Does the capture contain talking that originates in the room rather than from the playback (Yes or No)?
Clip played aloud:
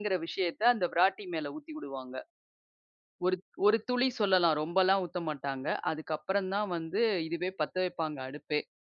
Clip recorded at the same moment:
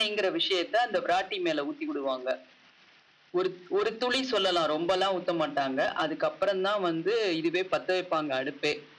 No